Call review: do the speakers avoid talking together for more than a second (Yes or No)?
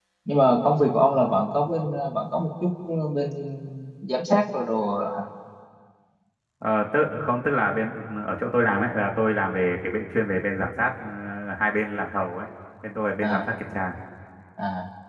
Yes